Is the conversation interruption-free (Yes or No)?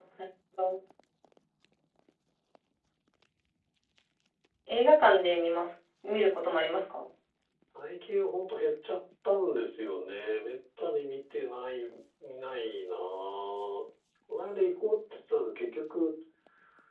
Yes